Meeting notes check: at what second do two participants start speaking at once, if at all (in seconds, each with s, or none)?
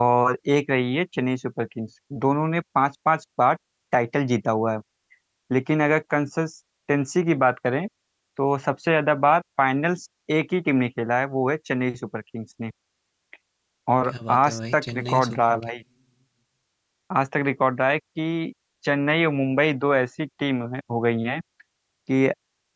14.1 s